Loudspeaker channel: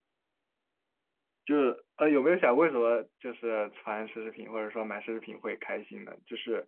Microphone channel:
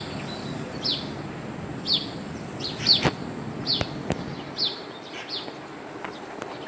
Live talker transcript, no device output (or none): none